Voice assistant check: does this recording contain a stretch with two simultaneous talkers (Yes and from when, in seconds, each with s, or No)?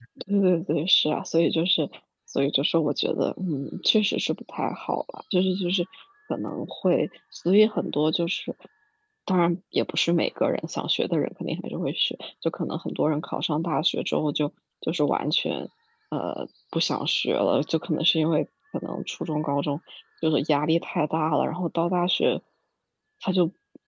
No